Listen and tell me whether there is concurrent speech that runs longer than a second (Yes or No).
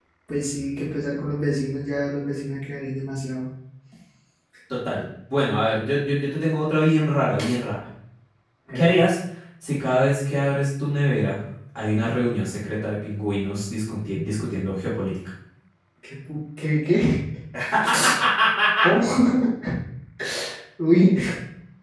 No